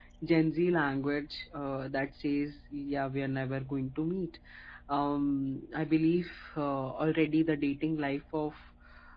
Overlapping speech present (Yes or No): No